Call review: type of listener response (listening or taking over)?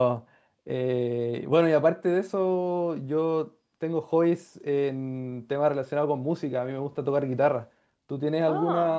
listening